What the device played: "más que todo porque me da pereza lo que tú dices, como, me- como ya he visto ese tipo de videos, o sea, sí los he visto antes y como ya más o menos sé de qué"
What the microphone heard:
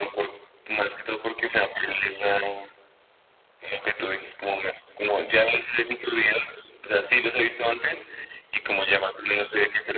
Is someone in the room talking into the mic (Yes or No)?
No